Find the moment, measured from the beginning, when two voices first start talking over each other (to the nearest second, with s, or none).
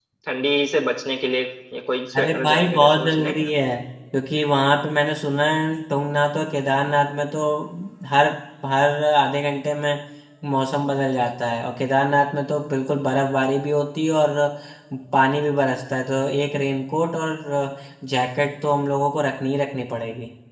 2 s